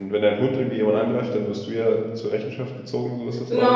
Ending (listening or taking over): taking over